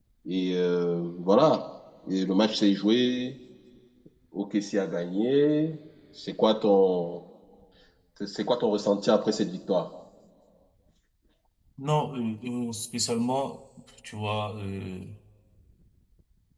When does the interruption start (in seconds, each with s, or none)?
none